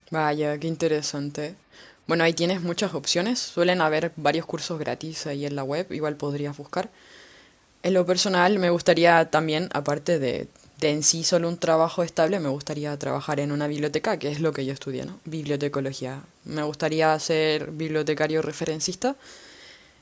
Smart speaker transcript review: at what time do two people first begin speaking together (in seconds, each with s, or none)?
none